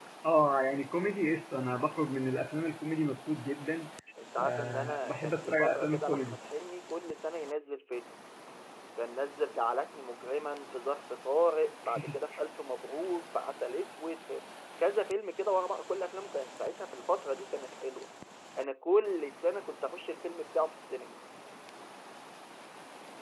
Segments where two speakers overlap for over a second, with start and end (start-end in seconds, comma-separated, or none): 4.4-6.4